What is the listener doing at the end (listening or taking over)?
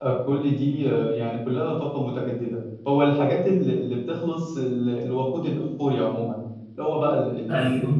listening